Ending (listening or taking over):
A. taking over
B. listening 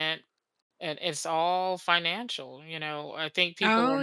B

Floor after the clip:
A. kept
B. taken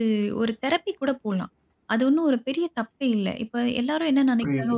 A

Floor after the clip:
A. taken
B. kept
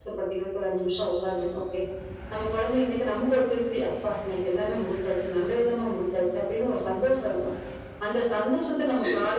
B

